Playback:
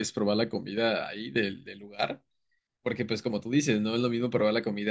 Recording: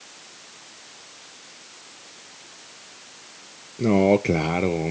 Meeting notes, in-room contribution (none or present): present